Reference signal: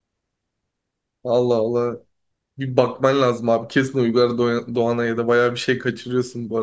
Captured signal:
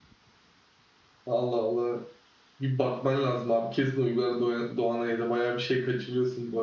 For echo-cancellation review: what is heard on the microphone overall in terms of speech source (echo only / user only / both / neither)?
echo only